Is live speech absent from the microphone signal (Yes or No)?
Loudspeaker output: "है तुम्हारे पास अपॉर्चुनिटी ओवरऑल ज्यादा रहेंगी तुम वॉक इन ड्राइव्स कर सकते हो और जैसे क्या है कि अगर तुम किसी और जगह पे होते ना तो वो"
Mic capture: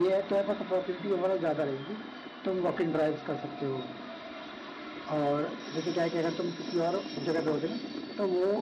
Yes